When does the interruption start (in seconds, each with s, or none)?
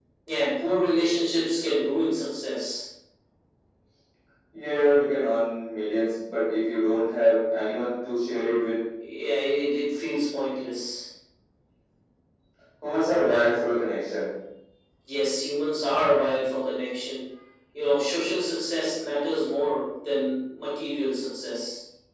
none